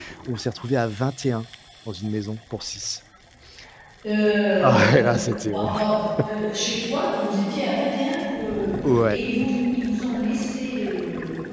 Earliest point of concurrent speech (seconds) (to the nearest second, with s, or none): 5 s